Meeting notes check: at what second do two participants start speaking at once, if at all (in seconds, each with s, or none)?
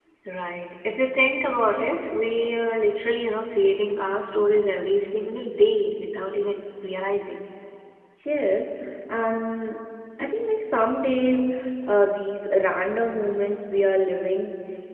none